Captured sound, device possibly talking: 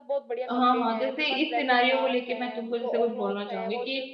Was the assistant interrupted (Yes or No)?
Yes